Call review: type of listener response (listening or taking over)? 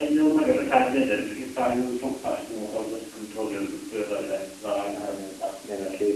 taking over